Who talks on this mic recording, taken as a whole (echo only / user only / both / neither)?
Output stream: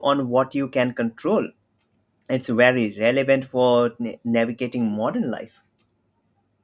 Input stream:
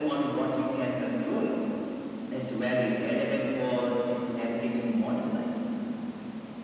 echo only